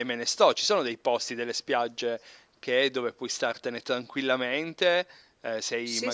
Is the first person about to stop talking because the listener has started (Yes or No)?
No